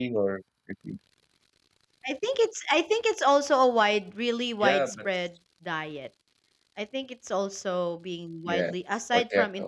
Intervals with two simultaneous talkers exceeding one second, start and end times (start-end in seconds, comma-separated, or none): none